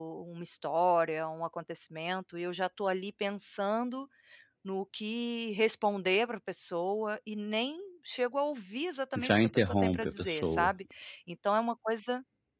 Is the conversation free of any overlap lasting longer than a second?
No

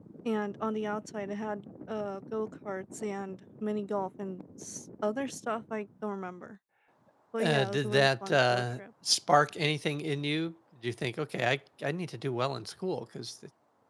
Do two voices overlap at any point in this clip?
Yes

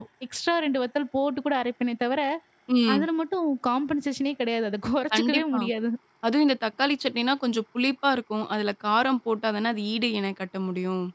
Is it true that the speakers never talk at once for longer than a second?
Yes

